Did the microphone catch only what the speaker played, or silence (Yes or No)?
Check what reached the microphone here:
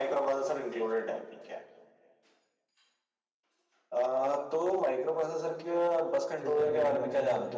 No